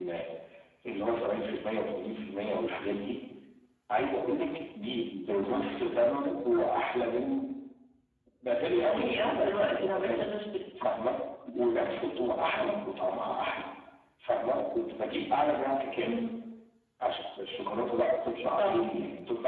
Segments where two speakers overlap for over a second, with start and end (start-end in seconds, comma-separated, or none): 8.8-10.2